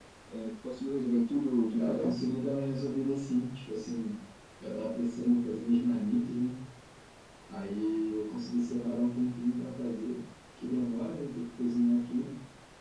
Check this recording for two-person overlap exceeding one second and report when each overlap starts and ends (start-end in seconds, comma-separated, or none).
none